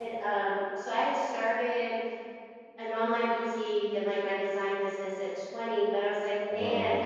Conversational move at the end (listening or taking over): listening